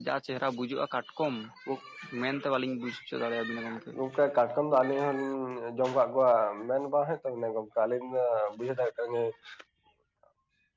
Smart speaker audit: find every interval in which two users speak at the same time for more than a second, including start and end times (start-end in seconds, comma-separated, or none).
none